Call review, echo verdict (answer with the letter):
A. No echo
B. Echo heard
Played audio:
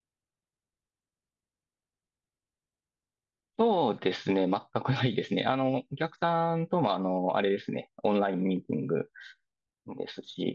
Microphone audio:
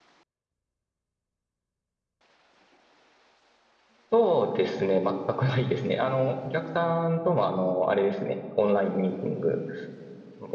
B